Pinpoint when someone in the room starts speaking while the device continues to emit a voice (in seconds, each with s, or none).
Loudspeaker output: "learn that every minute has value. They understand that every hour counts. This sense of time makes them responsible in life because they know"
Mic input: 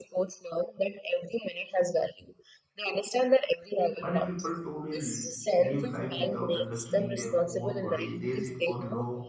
4.0 s